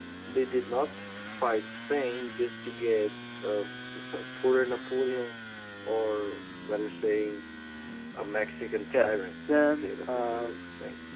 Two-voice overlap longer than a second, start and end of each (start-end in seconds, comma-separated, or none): 8.9-10.6